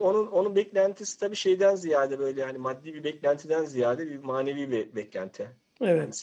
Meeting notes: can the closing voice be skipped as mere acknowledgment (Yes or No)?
Yes